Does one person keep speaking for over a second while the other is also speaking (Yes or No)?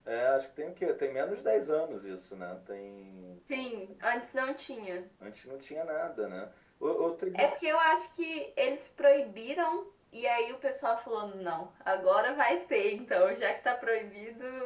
No